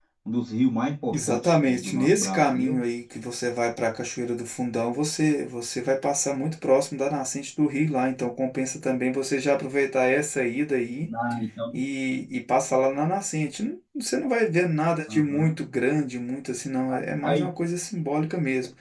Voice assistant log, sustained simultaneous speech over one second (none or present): present